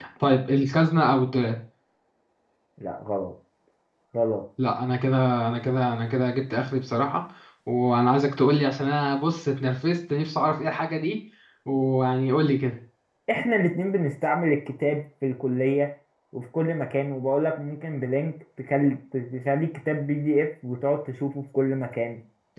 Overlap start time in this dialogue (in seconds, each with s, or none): none